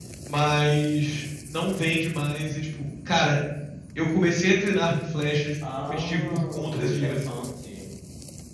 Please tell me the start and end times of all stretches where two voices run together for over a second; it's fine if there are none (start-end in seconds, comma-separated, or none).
5.8-7.3